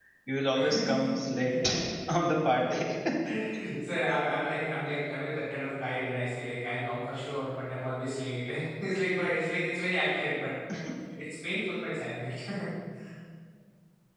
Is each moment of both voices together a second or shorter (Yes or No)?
Yes